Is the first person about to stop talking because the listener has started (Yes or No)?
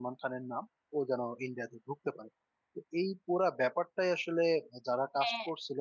No